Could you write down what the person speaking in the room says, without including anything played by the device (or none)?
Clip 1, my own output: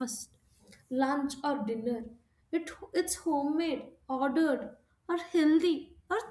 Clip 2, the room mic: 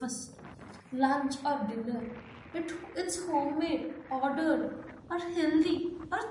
none